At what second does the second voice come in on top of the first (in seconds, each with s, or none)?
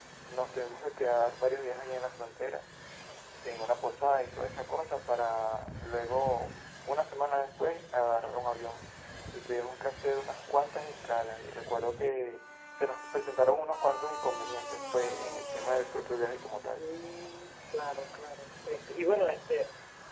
none